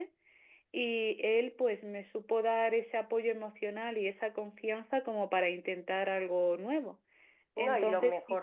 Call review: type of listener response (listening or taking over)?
taking over